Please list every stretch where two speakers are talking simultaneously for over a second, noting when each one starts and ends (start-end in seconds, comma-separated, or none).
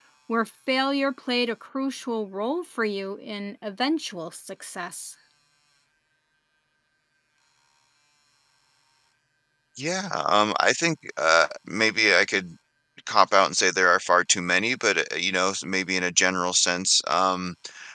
none